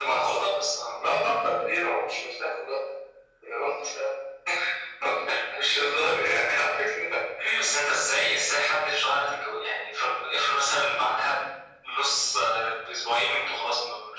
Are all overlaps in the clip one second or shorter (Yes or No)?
Yes